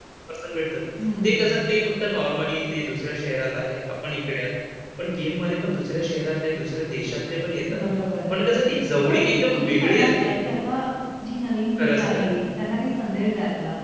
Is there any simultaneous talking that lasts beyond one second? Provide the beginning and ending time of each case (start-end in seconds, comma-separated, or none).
9.1-10.3